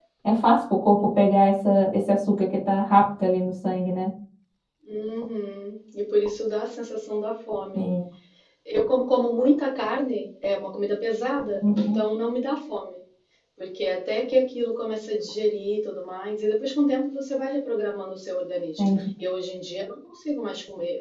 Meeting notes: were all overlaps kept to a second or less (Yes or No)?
Yes